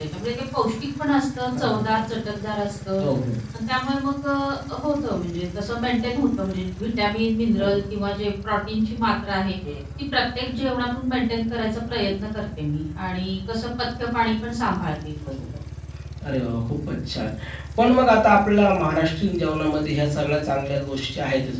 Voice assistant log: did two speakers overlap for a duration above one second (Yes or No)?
No